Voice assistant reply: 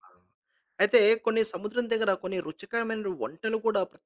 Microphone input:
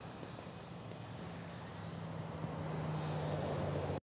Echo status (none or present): none